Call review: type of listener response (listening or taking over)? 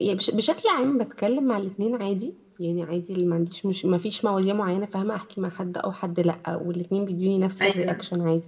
listening